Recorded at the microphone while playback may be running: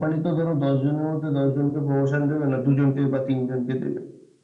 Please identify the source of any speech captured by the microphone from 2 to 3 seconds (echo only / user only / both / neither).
echo only